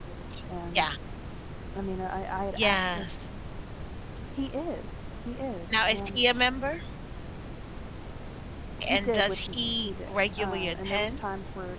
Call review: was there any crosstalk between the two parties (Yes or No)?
Yes